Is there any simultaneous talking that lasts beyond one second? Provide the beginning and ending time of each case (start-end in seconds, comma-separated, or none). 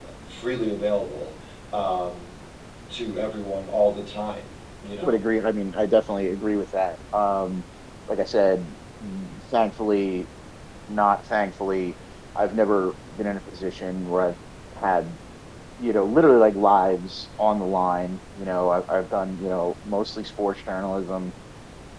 none